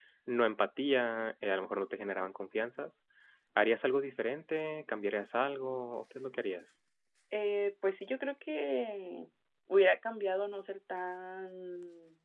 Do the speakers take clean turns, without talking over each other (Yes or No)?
Yes